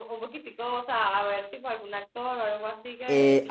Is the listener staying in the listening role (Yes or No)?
No